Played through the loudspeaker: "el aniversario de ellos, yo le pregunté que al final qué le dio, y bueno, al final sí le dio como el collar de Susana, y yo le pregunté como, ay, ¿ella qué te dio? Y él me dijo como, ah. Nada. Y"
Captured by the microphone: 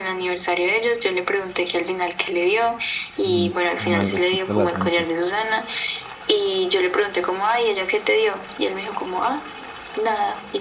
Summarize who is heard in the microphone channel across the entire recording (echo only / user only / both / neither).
both